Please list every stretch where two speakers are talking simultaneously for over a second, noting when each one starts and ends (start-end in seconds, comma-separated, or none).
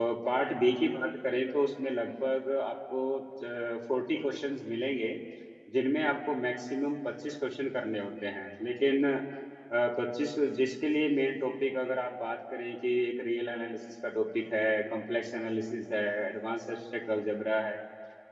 none